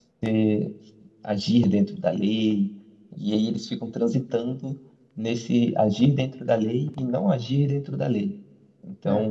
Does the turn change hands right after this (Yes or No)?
No